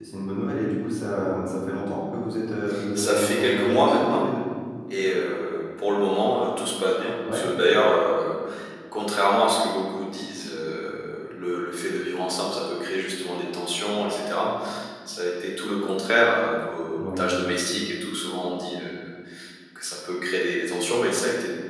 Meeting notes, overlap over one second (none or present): present